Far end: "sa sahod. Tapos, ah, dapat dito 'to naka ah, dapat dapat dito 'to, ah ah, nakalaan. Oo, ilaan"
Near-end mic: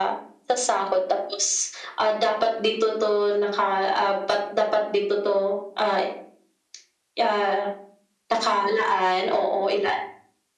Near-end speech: none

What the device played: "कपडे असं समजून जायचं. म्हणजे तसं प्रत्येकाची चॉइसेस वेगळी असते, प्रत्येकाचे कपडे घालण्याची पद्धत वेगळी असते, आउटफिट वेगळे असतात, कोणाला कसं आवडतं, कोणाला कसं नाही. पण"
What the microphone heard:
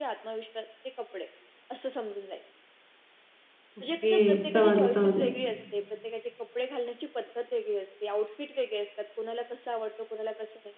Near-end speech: present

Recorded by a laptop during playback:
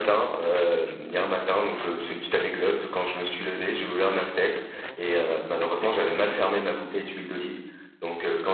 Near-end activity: present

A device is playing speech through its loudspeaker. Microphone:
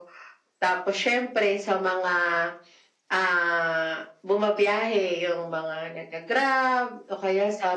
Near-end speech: none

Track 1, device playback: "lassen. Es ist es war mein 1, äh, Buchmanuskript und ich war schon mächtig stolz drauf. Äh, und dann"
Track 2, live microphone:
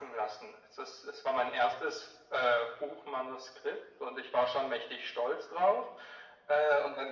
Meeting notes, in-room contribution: none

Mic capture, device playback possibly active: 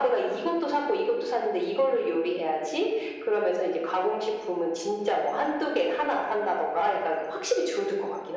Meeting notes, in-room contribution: none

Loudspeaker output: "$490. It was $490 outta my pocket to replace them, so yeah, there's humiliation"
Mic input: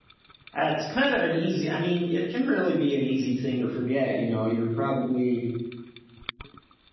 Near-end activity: present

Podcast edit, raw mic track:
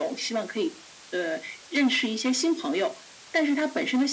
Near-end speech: none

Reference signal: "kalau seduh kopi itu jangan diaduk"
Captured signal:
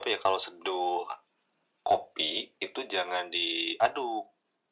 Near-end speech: none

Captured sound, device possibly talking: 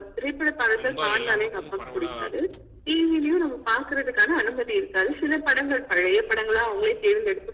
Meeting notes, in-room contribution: present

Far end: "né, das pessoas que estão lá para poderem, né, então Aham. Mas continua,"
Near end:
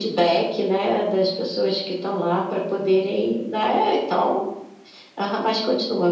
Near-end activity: none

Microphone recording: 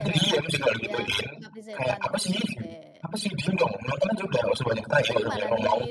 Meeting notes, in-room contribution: present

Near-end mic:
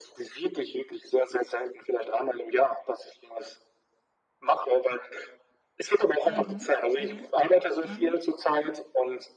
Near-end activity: present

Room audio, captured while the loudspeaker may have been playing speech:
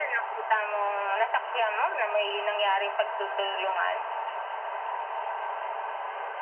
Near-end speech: none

